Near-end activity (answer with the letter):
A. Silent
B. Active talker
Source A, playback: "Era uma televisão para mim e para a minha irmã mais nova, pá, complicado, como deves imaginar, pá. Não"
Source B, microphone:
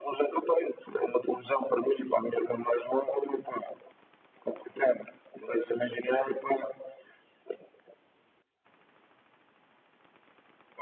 A